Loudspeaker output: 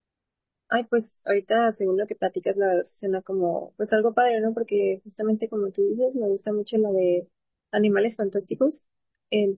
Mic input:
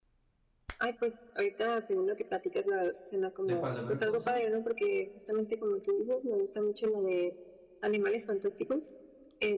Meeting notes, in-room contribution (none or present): present